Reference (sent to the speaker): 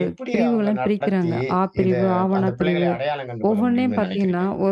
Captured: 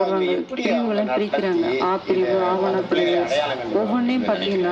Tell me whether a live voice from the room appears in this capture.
Yes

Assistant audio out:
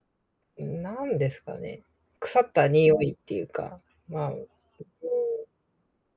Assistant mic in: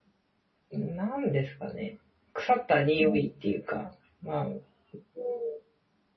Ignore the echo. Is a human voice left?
No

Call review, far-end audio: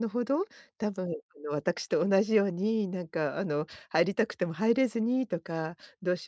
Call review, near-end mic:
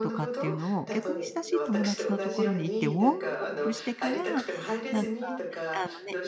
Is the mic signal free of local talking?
No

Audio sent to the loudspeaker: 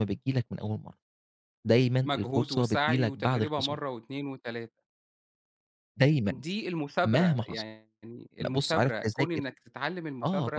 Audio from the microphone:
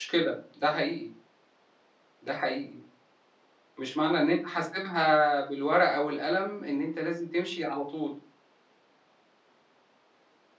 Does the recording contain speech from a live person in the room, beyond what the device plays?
Yes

